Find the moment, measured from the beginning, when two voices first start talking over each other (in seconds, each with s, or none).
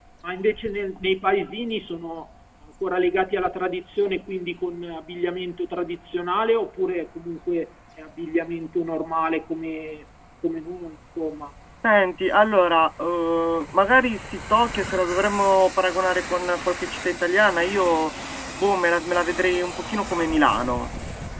none